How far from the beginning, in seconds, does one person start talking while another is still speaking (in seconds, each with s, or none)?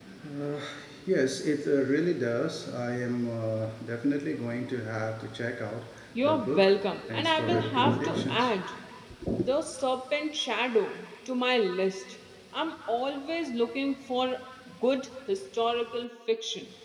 6.2 s